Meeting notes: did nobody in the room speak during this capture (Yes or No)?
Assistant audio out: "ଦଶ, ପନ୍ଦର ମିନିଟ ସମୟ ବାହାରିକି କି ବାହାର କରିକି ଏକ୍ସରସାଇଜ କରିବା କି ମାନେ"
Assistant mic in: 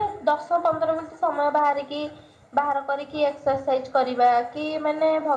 Yes